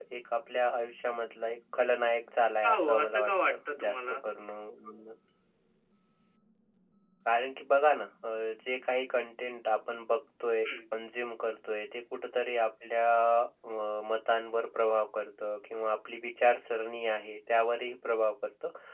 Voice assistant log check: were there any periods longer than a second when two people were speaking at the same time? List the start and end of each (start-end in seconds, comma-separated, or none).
2.6-4.2